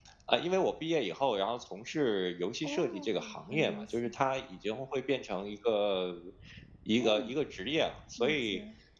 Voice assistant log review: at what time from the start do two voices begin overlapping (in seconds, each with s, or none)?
2.6 s